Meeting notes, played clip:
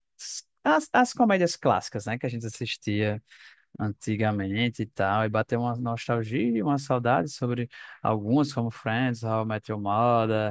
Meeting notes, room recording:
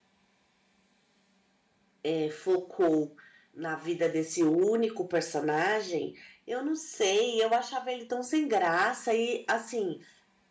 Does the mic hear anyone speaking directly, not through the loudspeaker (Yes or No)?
Yes